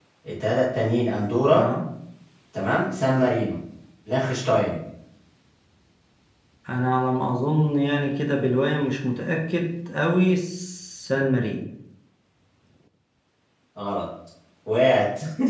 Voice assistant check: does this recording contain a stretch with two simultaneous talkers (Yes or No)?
No